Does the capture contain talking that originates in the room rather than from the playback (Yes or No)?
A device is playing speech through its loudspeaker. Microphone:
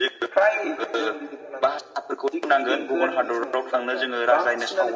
Yes